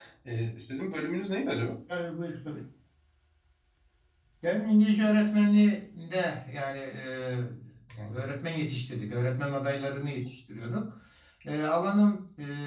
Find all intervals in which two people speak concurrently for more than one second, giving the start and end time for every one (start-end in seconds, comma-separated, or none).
none